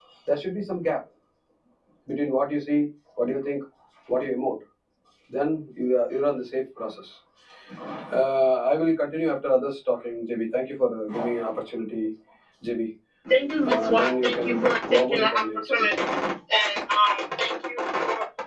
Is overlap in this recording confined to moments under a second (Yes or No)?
No